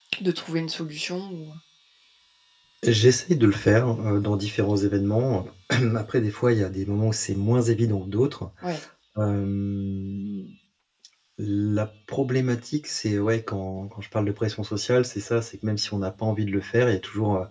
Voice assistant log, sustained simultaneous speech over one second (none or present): none